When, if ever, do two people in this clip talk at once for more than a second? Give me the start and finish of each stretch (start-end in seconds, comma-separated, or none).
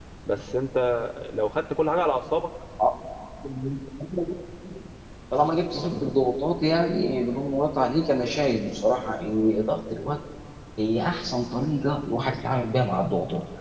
none